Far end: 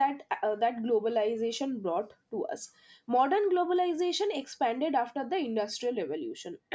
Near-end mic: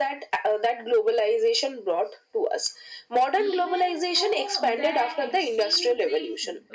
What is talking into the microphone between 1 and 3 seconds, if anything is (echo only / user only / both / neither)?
echo only